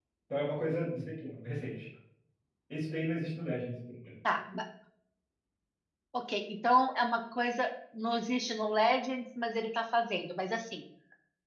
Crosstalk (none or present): none